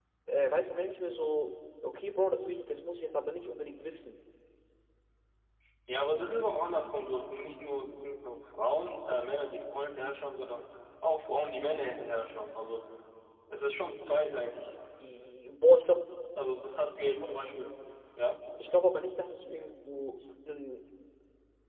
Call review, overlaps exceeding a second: none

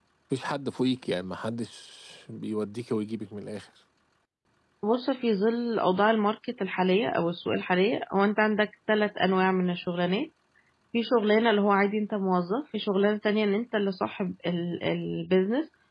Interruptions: none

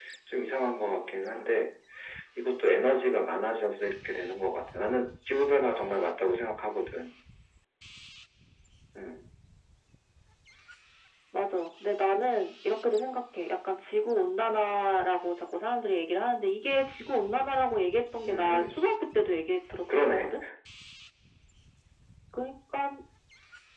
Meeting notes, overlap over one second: none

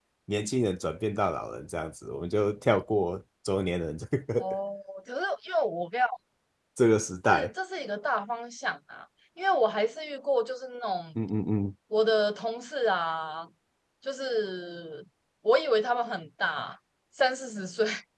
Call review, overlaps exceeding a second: none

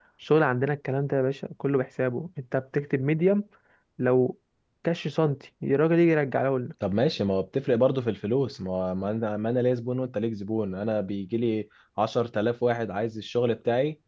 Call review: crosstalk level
none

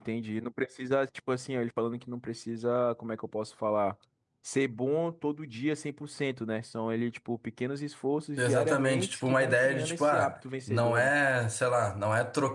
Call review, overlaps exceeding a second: present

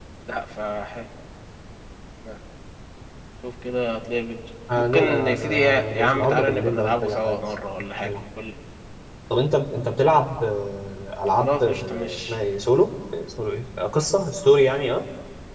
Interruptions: present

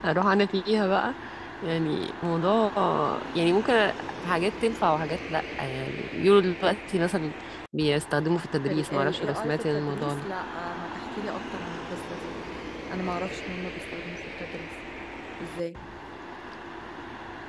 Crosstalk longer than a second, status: present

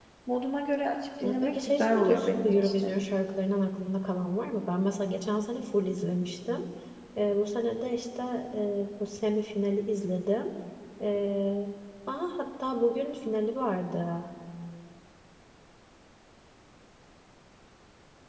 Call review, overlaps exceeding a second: present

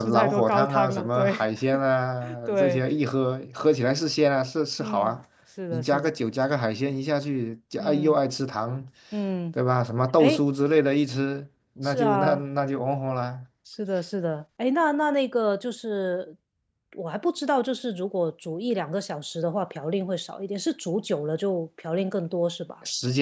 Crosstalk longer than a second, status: present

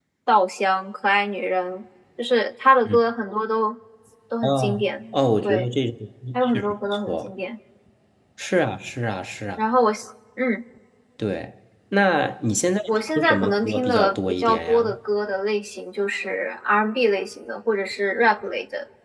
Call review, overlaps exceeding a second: present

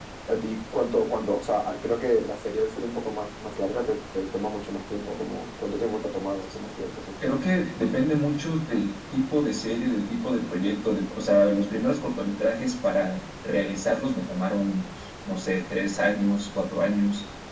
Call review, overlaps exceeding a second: none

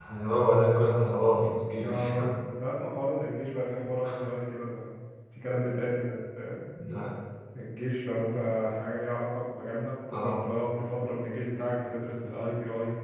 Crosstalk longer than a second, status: none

